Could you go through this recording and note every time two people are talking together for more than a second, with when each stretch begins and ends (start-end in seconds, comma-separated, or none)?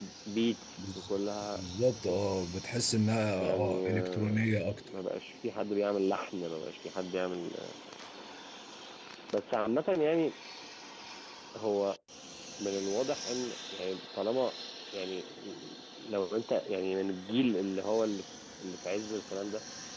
3.4-4.8